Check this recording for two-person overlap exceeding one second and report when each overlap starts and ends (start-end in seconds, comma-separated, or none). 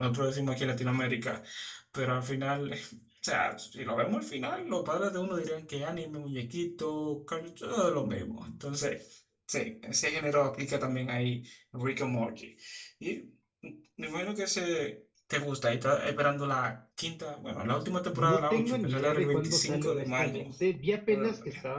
18.1-20.4